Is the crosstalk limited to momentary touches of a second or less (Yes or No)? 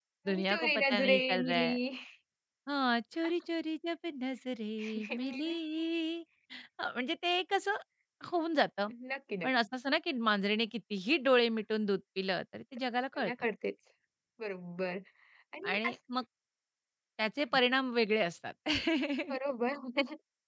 No